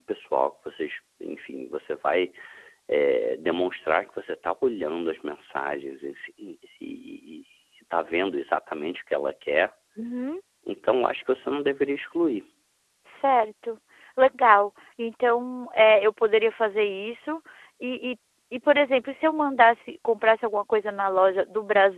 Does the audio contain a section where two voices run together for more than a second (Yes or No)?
No